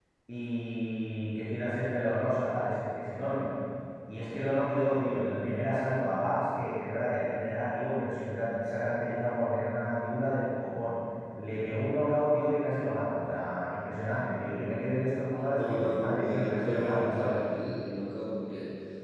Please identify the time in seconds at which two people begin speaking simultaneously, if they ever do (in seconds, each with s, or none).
15.5 s